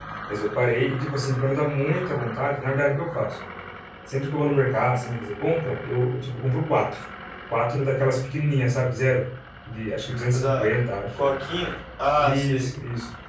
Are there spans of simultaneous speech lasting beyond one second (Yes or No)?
No